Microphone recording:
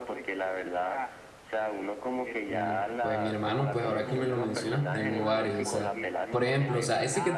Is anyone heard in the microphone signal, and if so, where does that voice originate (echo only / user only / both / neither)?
both